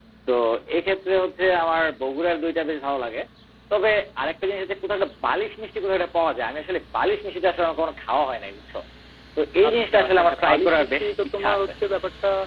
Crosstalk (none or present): present